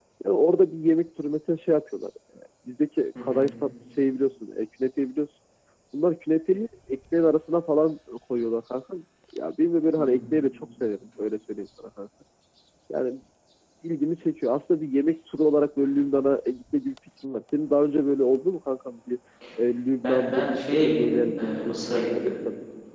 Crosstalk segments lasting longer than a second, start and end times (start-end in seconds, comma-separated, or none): 20.0-22.1